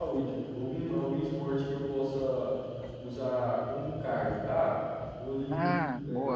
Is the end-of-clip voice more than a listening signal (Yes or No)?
No